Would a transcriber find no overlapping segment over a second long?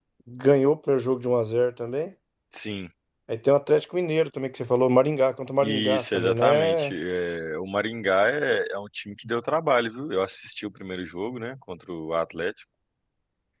No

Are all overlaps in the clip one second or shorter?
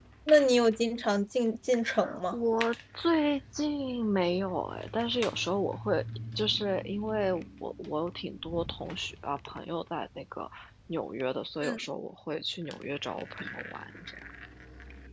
Yes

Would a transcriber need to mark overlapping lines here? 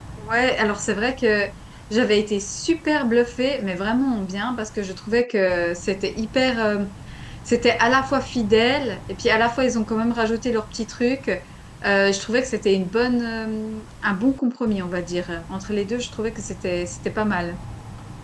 No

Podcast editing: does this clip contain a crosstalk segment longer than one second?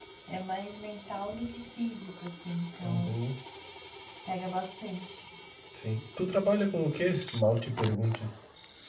No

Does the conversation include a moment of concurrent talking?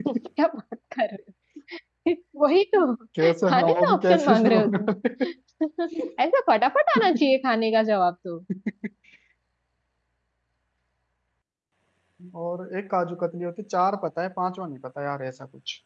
Yes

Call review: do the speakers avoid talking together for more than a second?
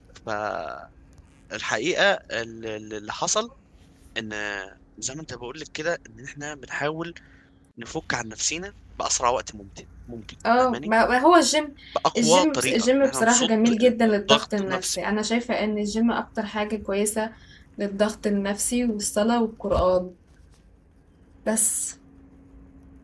No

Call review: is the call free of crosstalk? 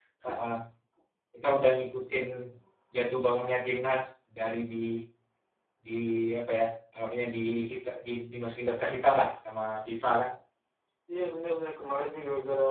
Yes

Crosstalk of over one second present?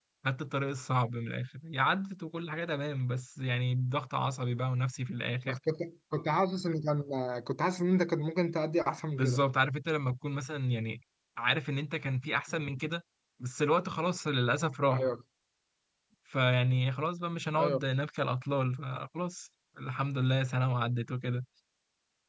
No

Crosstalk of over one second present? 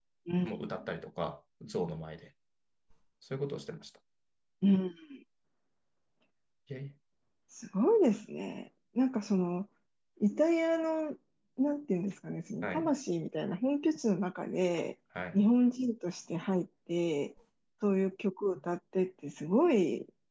No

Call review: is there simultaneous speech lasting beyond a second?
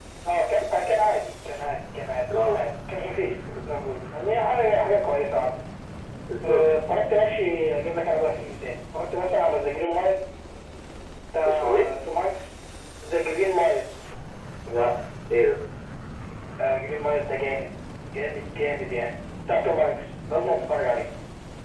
No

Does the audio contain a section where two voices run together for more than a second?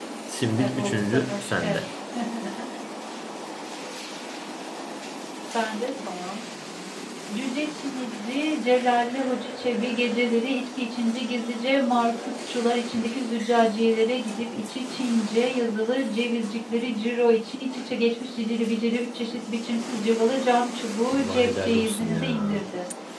Yes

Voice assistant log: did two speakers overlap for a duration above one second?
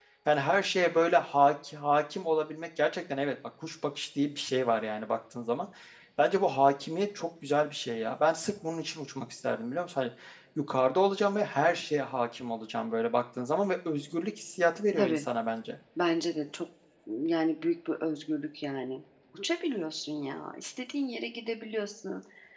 No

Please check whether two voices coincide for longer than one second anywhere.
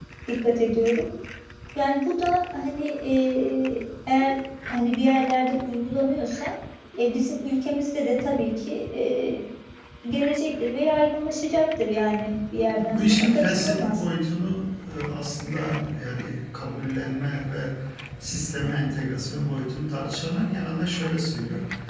Yes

